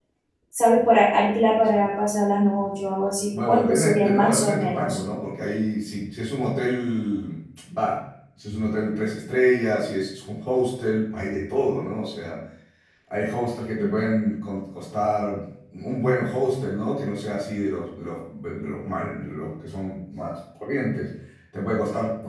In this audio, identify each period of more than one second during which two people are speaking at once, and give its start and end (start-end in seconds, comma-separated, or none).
3.5-5.0